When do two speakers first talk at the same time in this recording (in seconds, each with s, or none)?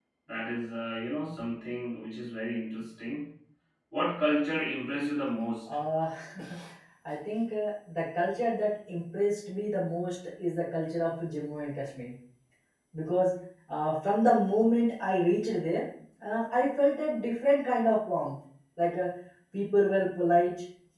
none